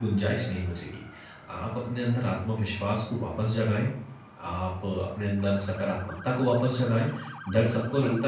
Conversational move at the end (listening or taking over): listening